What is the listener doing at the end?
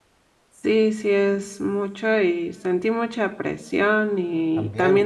listening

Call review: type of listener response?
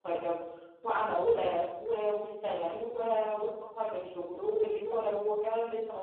listening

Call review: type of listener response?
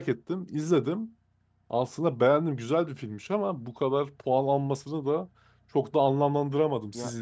taking over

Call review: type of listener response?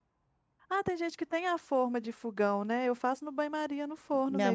taking over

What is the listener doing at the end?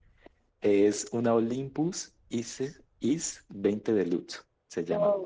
taking over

